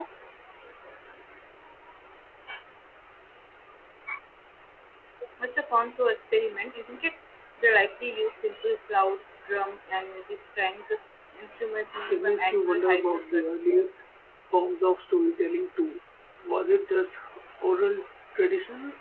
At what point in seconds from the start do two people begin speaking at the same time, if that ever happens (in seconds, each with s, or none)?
12.1 s